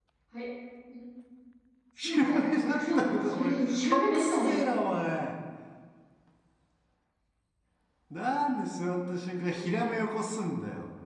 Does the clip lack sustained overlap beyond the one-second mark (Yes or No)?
No